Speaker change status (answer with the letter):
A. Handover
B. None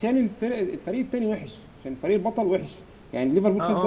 A